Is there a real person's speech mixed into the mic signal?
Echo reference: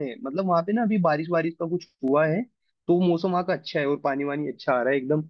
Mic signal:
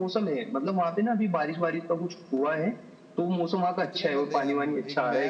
Yes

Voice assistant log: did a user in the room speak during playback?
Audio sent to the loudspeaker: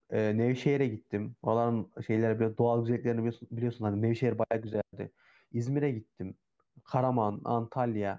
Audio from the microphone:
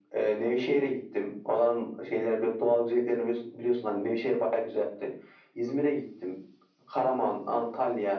No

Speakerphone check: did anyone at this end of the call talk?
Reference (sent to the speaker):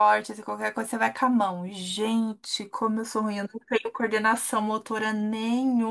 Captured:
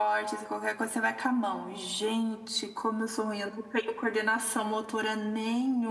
No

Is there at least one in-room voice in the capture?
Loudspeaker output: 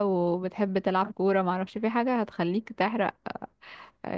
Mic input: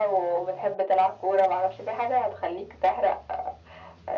No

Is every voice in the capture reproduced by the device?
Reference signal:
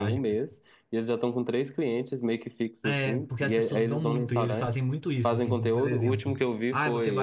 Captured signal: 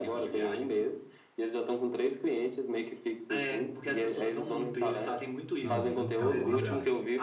No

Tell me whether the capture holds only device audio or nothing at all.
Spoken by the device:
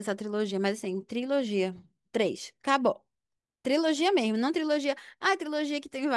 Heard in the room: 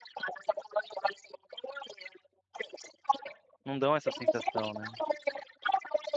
No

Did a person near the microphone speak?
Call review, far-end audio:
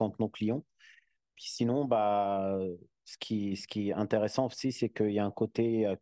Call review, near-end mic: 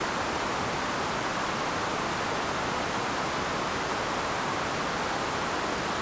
No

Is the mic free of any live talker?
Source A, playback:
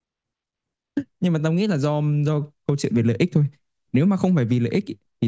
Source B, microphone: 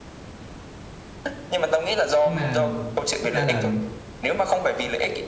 No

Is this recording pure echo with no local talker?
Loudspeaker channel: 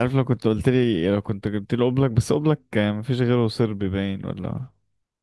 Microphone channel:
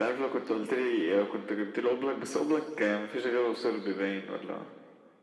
Yes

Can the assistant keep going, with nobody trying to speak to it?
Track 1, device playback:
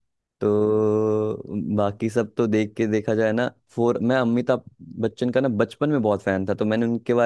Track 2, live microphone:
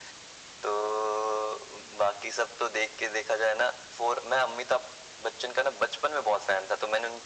Yes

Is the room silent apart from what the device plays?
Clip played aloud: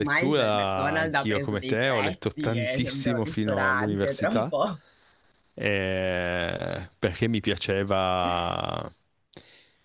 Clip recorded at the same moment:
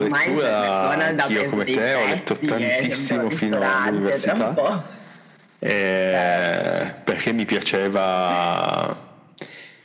No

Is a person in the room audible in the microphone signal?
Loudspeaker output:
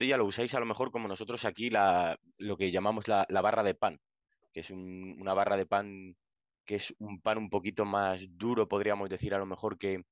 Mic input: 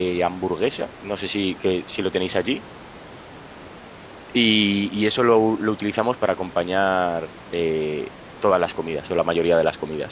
Yes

